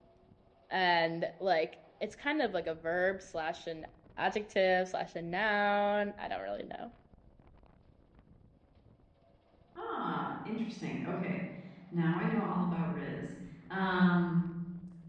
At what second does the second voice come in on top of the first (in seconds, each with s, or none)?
none